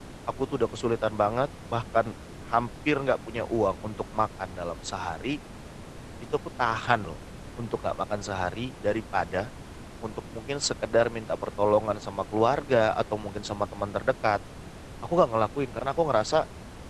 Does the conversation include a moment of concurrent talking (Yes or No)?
No